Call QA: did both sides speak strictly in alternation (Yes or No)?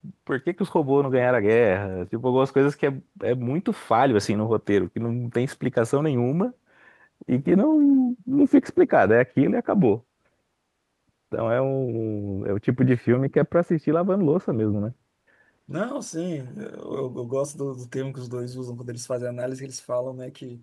Yes